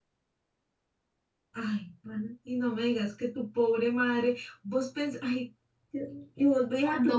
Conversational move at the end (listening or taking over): listening